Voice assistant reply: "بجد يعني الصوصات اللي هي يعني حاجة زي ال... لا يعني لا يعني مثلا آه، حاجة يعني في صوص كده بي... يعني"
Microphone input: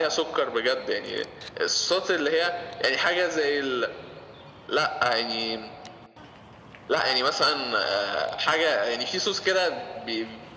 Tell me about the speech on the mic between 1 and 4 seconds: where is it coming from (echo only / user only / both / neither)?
echo only